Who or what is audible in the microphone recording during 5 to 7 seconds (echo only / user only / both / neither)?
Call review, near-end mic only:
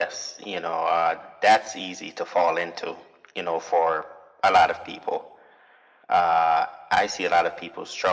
echo only